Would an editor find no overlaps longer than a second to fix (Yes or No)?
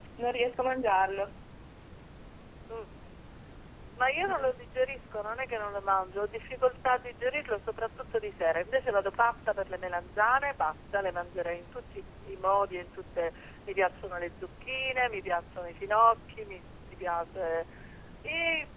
Yes